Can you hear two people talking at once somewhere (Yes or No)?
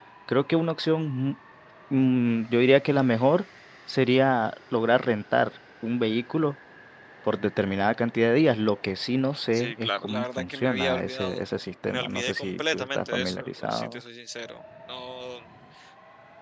Yes